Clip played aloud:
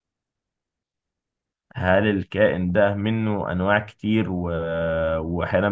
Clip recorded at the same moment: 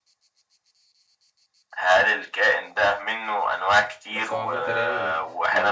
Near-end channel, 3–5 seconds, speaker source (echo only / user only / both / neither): both